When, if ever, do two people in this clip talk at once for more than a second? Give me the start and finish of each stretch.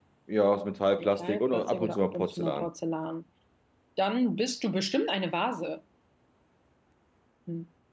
1.0-2.7

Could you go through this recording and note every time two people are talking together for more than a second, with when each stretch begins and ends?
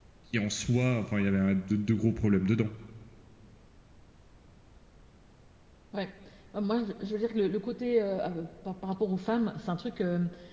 none

